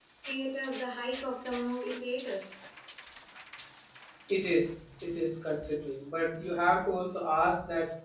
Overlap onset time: none

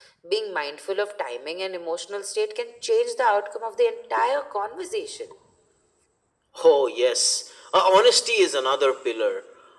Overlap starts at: none

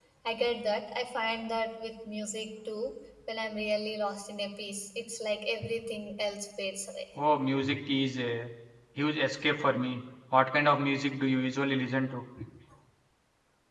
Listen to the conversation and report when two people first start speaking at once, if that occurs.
none

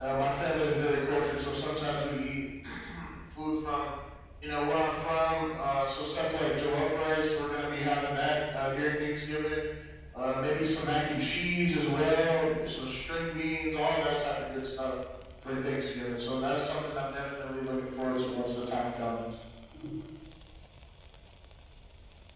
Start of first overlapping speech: none

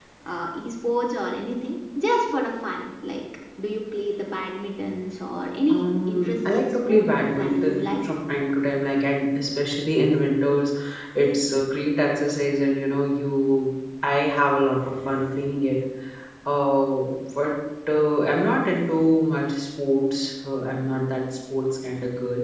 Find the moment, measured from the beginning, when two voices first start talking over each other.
6 s

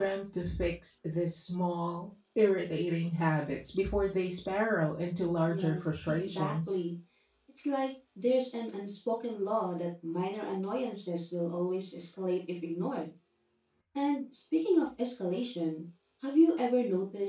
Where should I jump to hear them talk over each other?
5 s

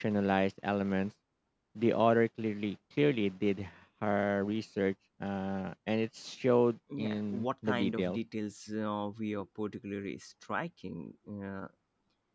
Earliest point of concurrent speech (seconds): 7 s

